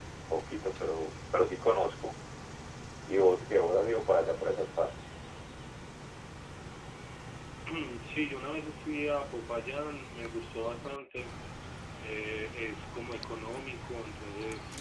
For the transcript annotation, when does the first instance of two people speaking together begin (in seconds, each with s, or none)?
none